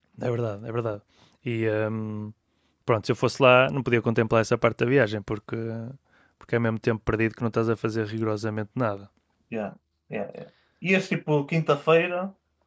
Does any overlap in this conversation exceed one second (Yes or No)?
No